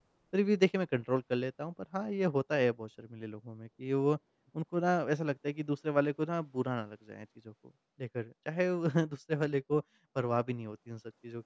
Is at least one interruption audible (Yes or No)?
No